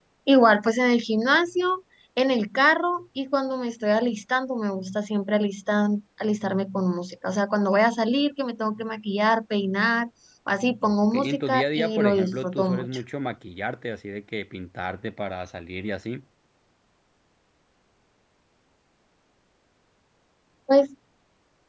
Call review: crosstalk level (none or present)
present